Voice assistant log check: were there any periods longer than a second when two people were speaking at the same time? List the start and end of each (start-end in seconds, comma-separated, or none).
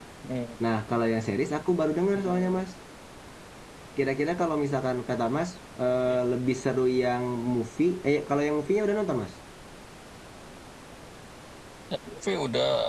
none